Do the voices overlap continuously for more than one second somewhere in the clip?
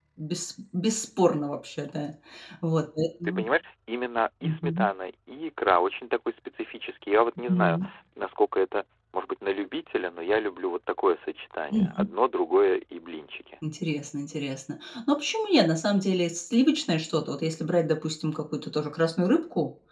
No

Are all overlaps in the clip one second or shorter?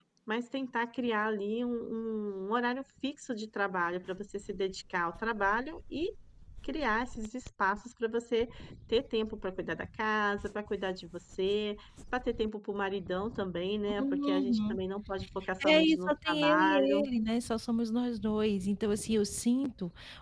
No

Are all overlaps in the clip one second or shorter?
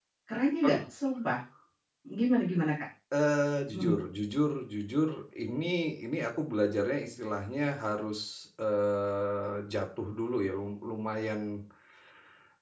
Yes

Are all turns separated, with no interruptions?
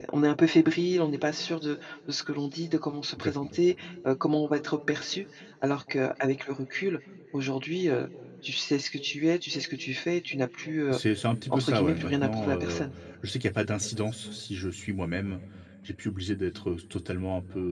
No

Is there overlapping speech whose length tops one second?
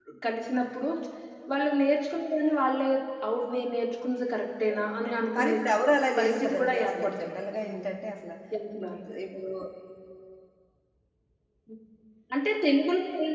Yes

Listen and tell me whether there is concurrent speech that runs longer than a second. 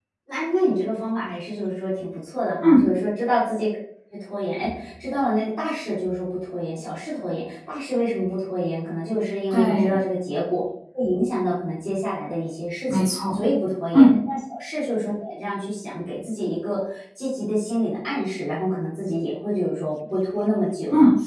No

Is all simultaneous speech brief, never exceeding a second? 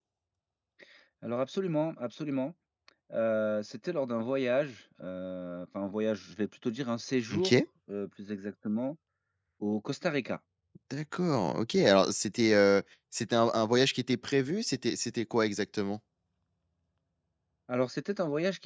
Yes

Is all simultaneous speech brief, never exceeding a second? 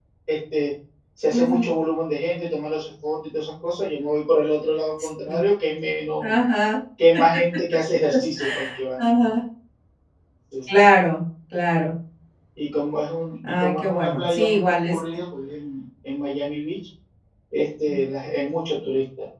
No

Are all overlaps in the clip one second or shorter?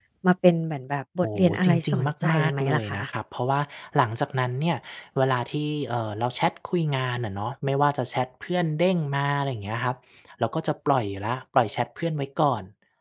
No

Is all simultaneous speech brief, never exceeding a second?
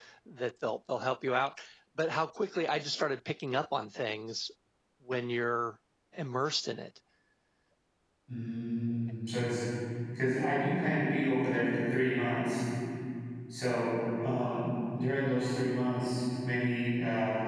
Yes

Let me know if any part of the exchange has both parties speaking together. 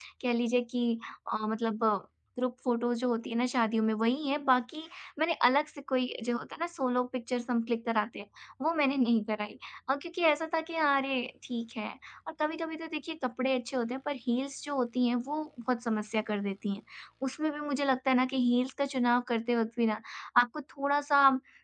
No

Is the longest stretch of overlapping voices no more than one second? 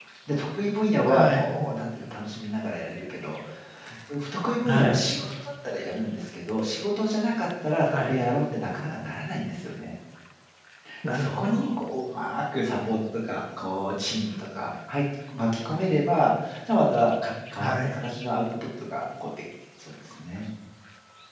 Yes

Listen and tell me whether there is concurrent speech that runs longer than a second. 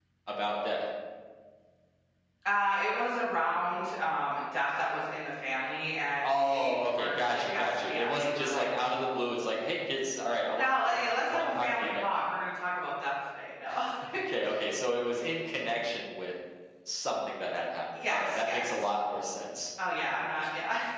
Yes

